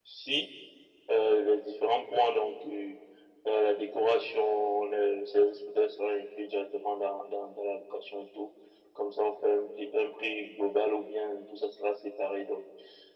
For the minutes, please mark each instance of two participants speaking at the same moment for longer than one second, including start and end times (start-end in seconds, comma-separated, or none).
none